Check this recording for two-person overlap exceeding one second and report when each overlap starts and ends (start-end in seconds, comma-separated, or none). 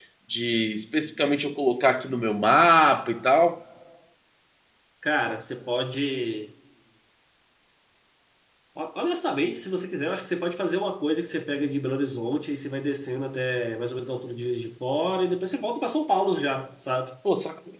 none